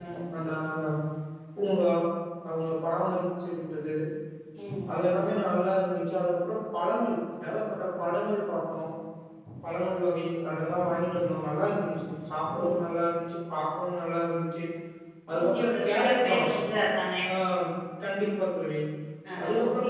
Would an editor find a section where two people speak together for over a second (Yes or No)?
Yes